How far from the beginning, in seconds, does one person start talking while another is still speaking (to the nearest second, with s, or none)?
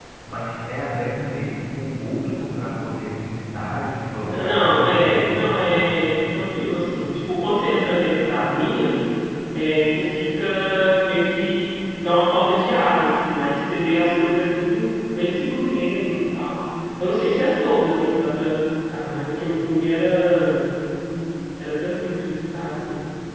4 s